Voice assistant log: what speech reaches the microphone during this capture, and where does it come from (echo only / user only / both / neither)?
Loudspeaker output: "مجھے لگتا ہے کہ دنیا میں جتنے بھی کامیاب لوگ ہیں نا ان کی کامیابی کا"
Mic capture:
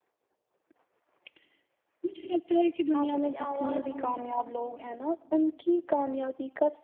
both